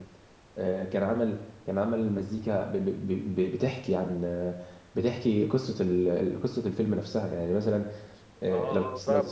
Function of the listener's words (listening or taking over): taking over